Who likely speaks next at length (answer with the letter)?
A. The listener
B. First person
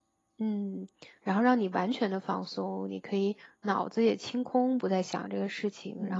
A